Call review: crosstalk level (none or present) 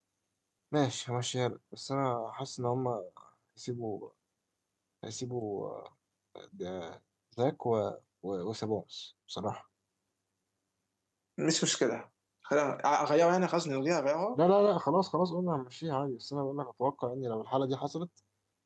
none